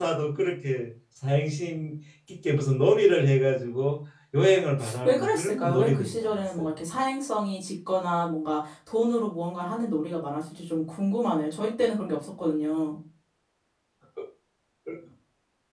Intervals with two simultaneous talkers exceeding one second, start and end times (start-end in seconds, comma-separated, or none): 5.0-6.7